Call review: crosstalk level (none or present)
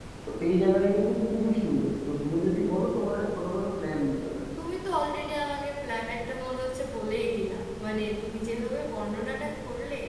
none